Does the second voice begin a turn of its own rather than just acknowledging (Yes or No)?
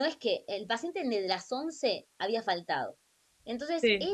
No